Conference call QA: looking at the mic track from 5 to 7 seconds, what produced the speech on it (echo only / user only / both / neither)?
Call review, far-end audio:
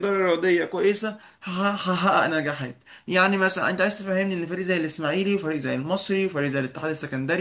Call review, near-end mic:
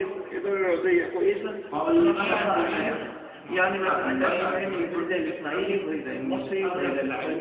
both